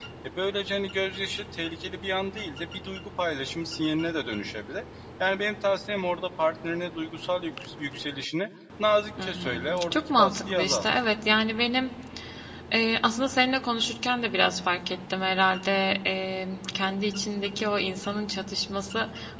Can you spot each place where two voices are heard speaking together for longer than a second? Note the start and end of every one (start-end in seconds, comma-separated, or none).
9.2-10.9